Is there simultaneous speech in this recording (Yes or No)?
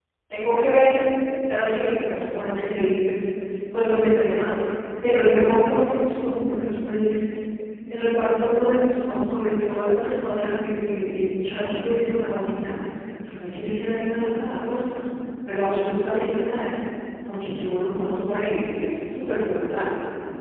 No